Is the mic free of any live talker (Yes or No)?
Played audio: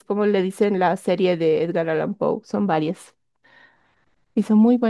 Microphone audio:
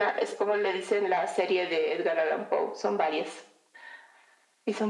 Yes